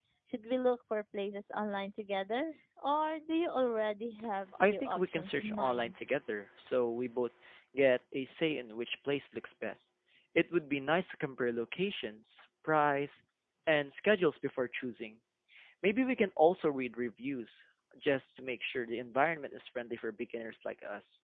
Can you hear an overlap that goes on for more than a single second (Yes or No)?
Yes